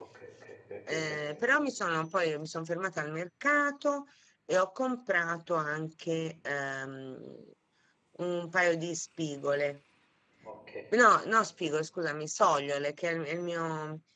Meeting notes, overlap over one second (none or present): none